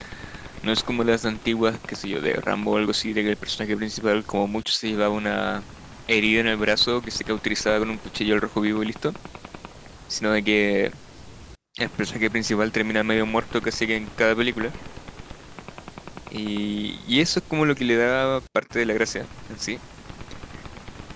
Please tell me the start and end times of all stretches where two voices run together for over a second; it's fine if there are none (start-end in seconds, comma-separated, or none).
none